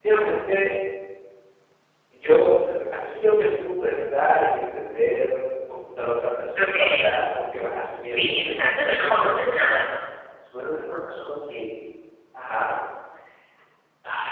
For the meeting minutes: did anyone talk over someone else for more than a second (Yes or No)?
Yes